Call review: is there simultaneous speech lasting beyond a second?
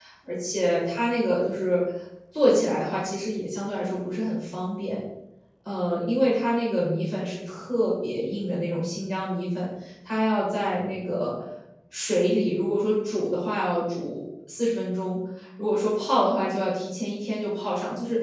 No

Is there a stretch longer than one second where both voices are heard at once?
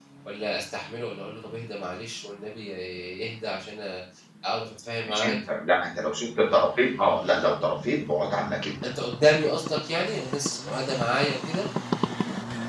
No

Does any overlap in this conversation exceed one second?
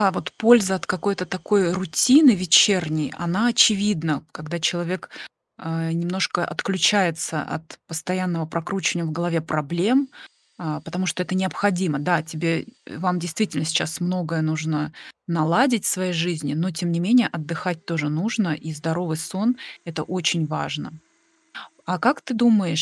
No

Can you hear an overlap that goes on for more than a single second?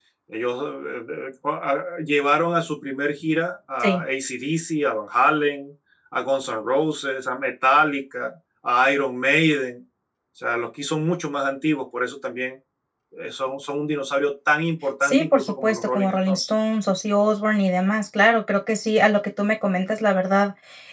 Yes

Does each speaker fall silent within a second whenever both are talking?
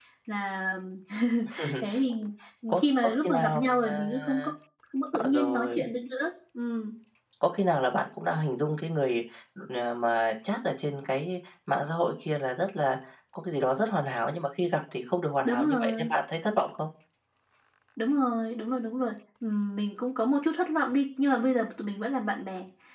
No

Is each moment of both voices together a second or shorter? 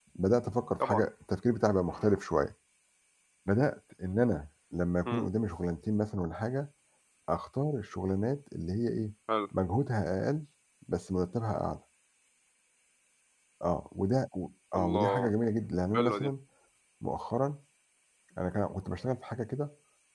Yes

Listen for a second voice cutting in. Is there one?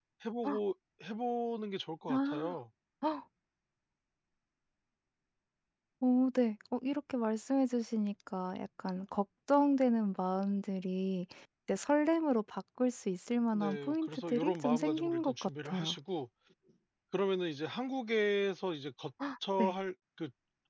Yes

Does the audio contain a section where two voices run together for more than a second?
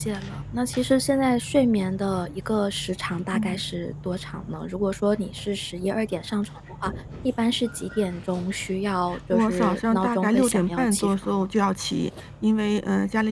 Yes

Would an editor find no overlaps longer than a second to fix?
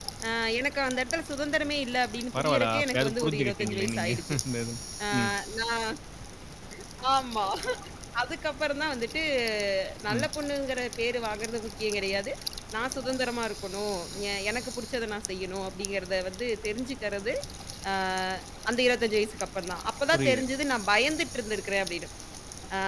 No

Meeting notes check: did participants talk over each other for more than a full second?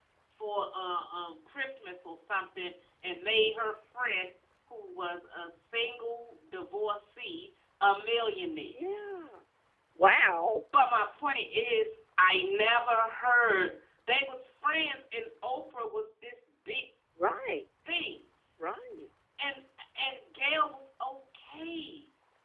No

